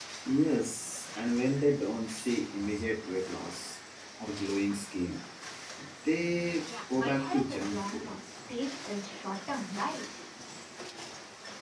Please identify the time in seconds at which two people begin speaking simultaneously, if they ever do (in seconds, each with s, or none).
6.9 s